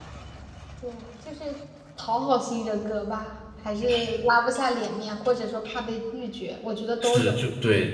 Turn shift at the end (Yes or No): Yes